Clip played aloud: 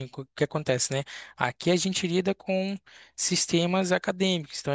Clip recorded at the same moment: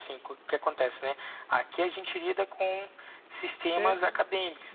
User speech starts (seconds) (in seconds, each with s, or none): 3.8 s